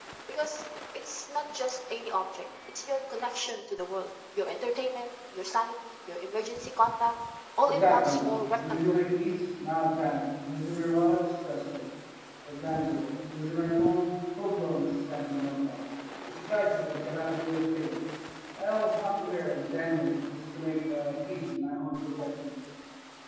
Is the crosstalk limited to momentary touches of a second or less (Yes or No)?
No